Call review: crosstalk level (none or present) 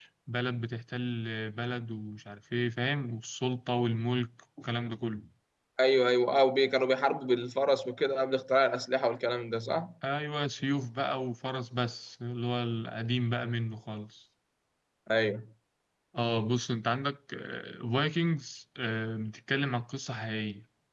none